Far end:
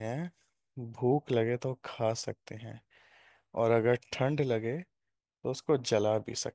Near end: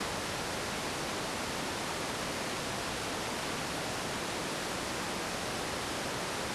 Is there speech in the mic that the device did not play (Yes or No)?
No